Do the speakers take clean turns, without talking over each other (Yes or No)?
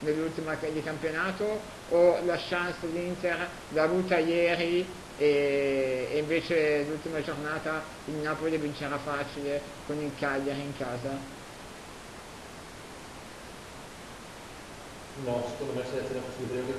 Yes